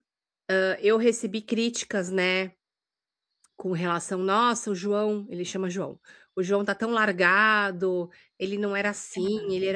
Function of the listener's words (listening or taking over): listening